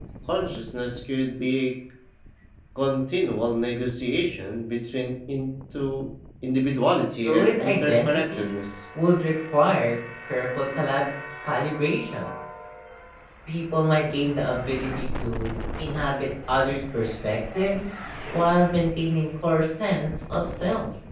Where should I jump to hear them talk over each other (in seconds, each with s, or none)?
7.2 s